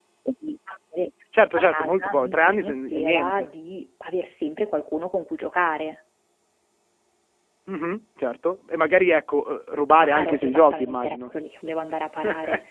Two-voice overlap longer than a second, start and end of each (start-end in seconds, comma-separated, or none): 1.5-3.5, 9.9-11.2